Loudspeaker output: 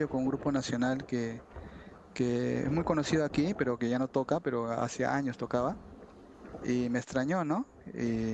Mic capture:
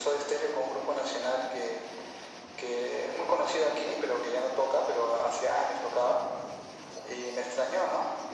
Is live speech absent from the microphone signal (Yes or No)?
Yes